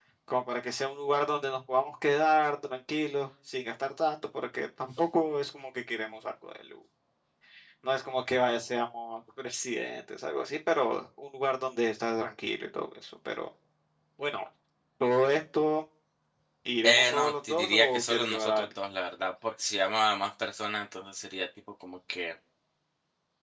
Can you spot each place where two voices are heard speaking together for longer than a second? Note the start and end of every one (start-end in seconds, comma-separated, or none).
16.8-18.7